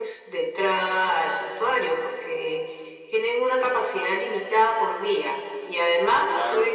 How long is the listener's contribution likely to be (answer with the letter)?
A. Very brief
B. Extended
A